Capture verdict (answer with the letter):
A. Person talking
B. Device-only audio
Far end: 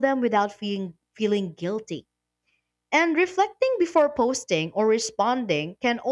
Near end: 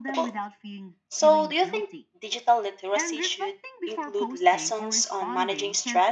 A